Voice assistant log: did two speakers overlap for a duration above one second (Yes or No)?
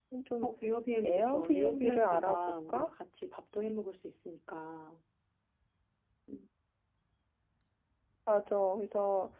Yes